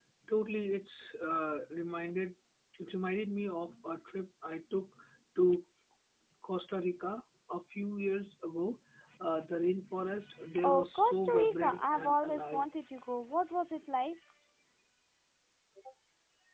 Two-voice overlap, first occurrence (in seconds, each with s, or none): 10.6 s